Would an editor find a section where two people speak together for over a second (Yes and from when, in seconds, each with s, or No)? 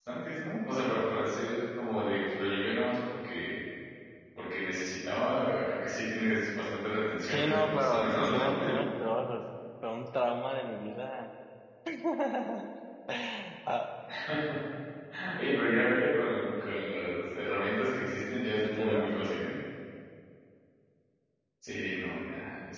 Yes, from 7.3 s